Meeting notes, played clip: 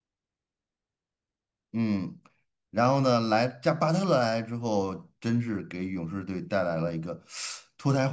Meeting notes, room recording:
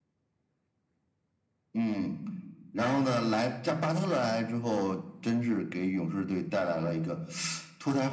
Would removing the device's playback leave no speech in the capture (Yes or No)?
Yes